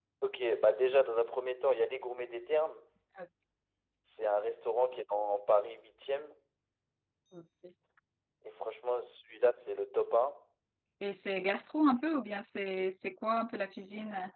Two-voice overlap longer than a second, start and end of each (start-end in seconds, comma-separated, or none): none